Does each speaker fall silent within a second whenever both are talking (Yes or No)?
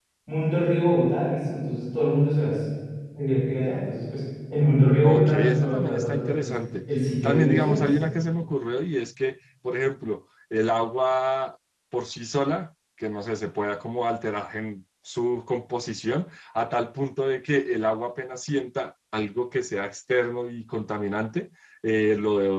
No